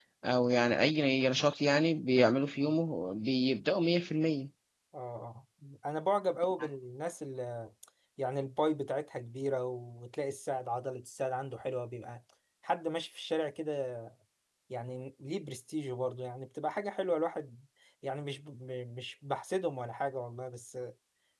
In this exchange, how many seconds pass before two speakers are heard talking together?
none

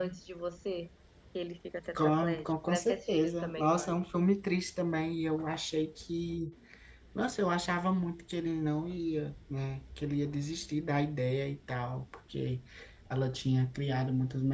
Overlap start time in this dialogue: 1.9 s

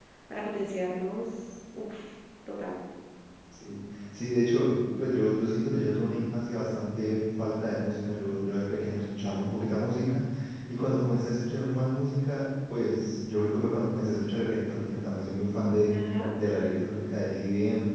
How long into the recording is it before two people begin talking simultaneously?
none

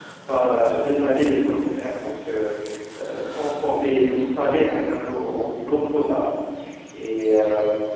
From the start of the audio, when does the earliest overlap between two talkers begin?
none

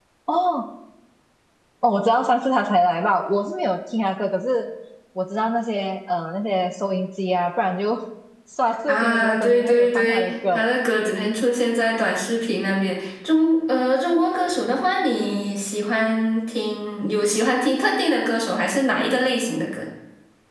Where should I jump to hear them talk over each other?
8.9 s

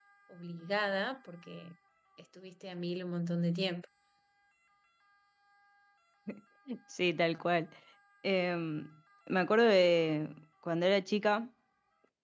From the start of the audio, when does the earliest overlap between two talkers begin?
none

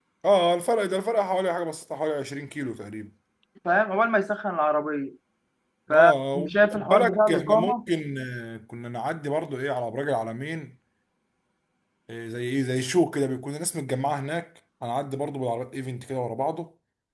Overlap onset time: 5.9 s

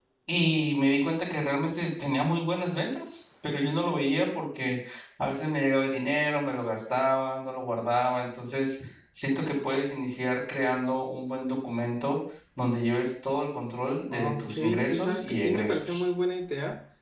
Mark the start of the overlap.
14.1 s

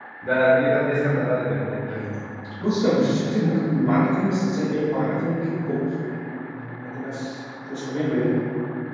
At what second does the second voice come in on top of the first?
none

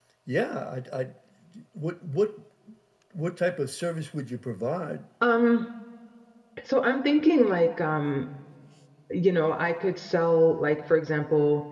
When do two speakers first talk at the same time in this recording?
none

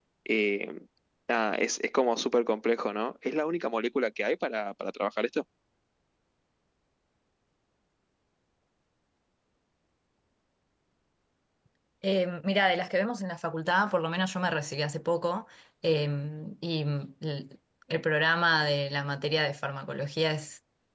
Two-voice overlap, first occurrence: none

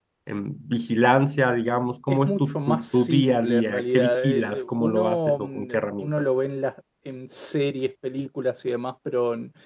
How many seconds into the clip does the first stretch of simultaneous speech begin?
2.1 s

